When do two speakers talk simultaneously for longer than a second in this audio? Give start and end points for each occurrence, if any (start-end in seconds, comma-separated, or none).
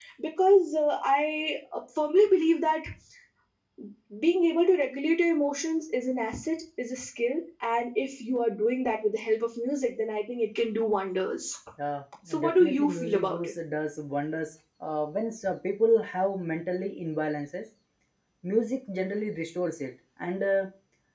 12.3-13.5